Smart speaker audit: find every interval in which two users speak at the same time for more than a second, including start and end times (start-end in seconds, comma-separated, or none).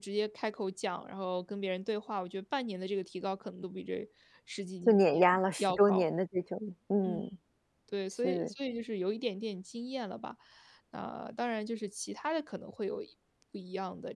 4.9-6.1